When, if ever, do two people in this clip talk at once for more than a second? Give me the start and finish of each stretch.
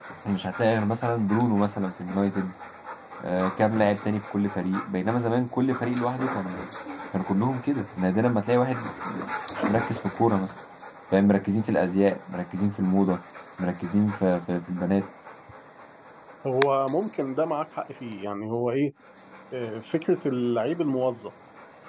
none

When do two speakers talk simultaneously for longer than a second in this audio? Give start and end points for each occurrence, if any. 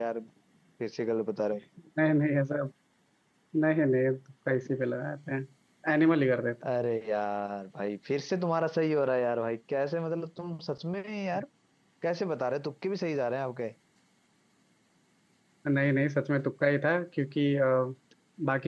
none

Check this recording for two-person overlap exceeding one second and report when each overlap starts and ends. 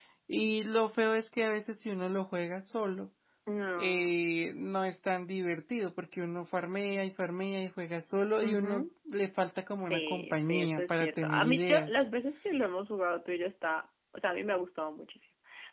9.8-12.0

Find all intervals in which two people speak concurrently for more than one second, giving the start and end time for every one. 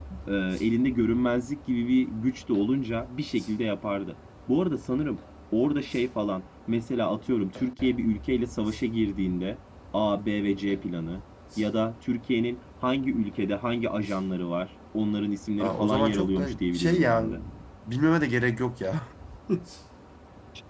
15.6-17.2

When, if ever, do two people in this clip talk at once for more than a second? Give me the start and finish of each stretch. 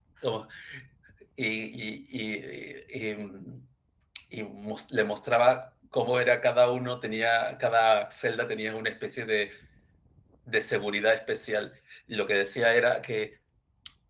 none

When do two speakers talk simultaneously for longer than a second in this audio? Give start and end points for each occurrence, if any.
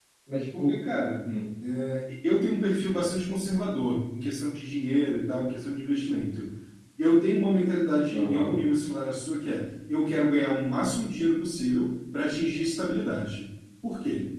none

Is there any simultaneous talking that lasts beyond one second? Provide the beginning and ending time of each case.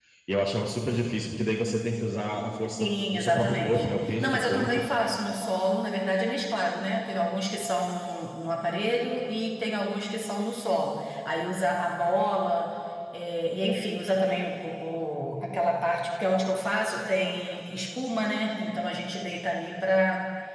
2.8-4.7

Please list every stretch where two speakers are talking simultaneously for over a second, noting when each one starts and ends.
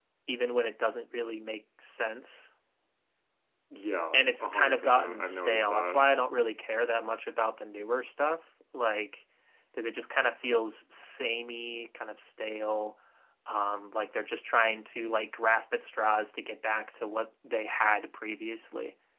4.1-6.0

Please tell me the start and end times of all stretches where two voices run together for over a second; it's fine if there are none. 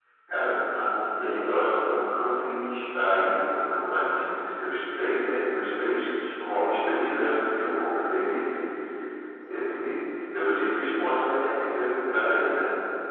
1.2-2.5

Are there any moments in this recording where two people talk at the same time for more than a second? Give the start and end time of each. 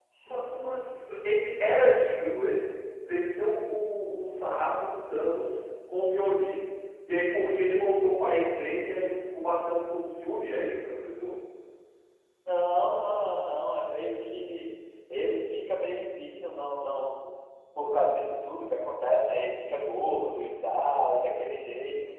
none

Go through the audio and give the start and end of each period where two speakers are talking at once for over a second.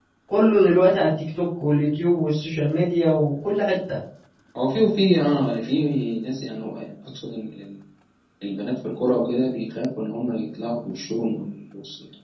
none

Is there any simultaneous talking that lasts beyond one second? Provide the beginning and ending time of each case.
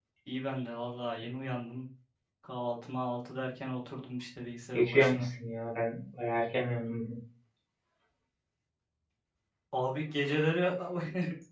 none

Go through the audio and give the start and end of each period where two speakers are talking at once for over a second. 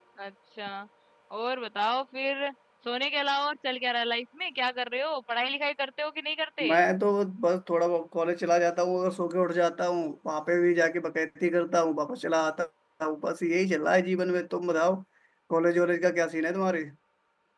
none

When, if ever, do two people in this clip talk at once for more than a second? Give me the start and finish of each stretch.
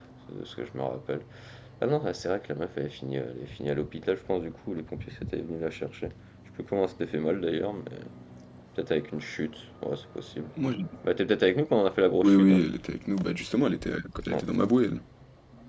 none

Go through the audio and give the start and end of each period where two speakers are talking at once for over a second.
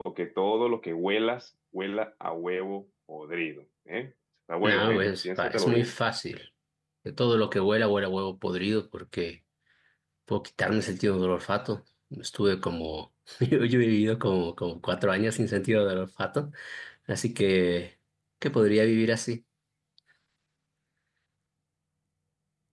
4.6-5.9

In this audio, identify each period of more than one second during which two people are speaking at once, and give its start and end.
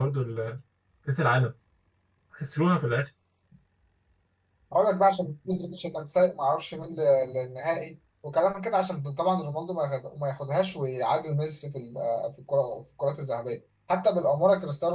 none

